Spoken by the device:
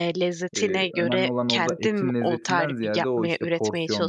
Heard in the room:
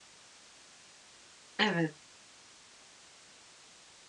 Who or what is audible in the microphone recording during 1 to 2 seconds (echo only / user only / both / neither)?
user only